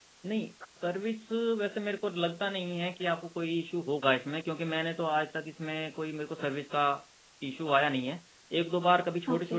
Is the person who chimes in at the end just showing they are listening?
Yes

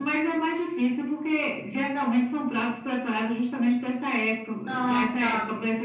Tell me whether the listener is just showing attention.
Yes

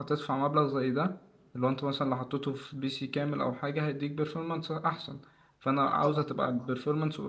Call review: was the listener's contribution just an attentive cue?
Yes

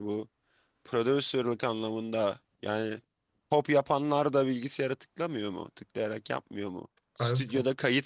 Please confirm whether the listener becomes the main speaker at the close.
No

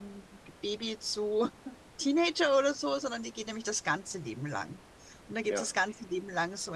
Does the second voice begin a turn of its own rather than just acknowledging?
No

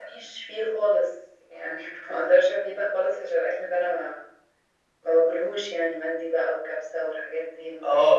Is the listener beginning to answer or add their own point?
Yes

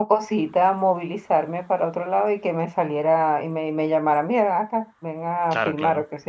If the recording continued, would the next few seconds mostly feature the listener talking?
No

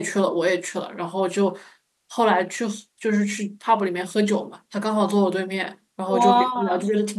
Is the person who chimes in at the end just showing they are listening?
Yes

